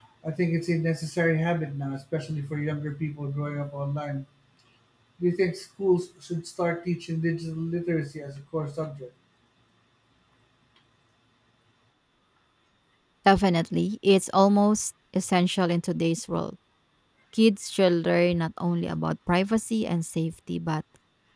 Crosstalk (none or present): none